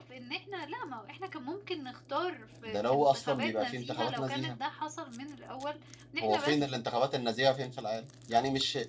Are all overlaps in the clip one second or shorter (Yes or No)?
No